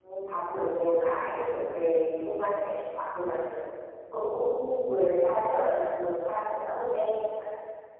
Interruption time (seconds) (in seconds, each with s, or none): none